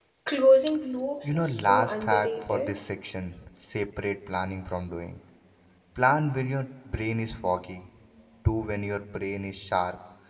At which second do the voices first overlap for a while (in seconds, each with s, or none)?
1.2 s